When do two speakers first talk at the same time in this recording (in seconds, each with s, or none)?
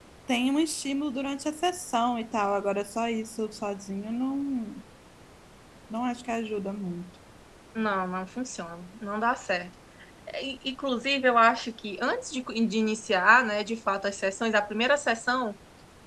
none